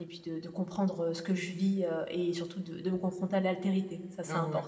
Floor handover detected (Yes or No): Yes